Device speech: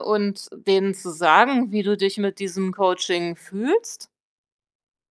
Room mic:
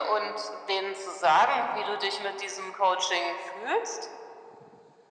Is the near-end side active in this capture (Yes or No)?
No